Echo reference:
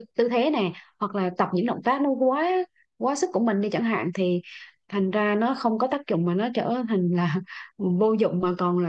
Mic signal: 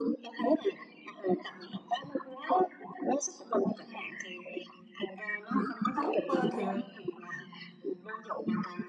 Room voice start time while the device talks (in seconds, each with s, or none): 6.0 s